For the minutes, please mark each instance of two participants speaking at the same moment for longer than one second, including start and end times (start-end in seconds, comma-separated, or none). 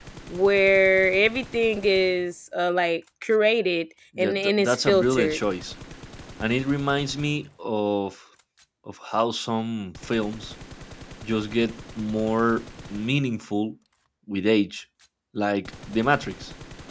4.2-5.4